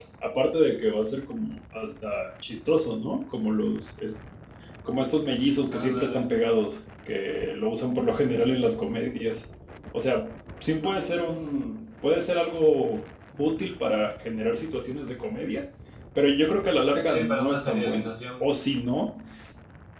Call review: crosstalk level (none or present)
present